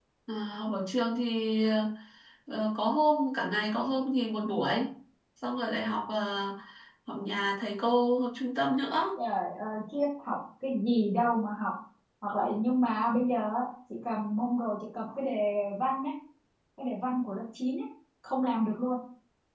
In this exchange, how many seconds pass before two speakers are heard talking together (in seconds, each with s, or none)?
none